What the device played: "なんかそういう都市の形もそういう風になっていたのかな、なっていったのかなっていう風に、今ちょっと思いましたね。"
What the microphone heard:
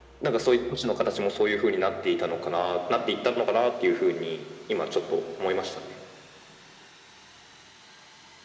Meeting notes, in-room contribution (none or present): none